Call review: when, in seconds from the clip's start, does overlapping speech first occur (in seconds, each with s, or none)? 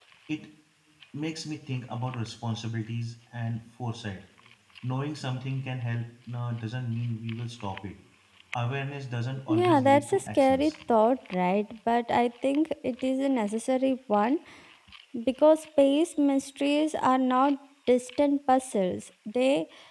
9.5 s